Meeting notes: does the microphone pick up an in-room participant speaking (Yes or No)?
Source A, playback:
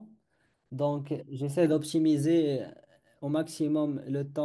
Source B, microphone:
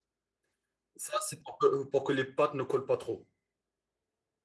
Yes